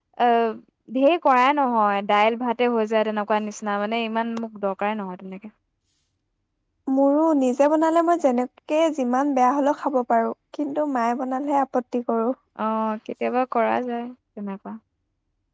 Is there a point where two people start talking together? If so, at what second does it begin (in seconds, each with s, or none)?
none